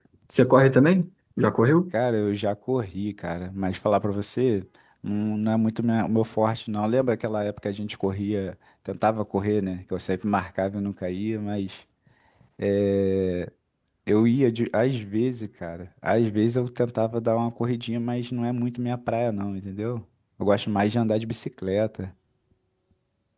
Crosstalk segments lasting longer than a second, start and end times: none

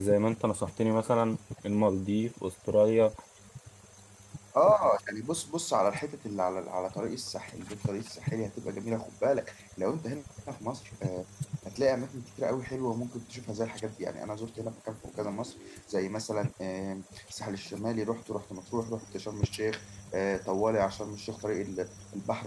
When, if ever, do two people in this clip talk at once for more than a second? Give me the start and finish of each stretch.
none

